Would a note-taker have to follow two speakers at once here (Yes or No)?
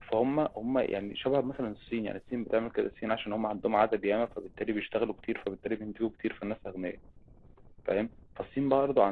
No